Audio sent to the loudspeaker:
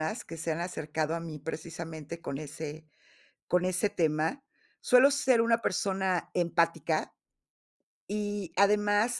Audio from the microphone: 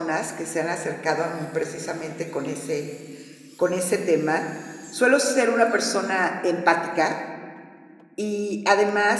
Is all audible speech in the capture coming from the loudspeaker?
Yes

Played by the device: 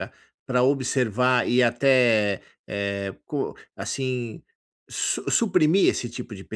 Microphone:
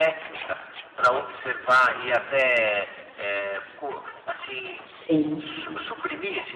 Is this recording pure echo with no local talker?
No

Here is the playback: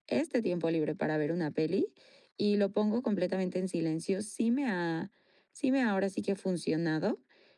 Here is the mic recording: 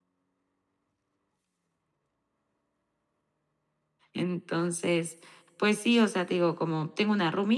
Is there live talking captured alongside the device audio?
Yes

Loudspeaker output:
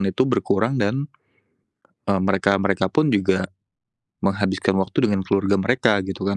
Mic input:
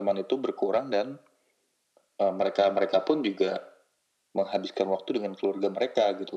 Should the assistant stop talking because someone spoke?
No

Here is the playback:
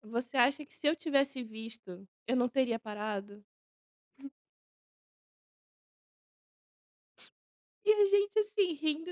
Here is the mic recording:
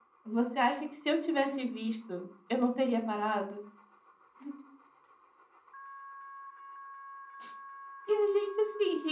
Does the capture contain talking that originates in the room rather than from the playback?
No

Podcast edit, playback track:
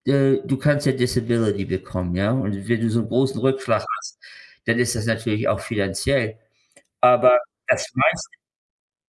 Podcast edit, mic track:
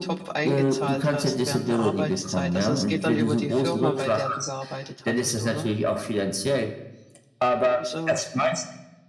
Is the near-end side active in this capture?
Yes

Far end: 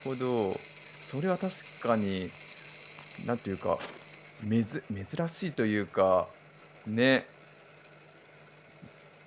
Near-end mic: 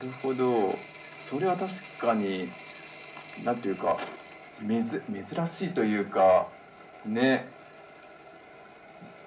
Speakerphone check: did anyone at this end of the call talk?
No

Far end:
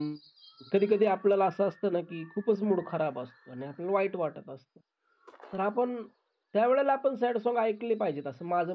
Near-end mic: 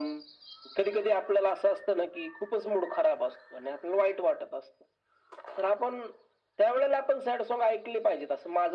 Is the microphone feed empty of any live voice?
Yes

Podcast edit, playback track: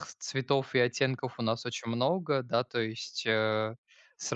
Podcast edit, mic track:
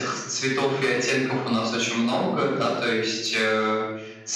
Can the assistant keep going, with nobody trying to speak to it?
Yes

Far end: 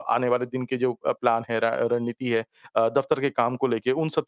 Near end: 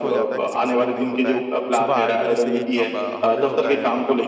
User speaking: Yes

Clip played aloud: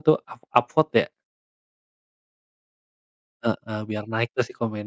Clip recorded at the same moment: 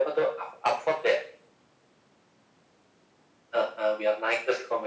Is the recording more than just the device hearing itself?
No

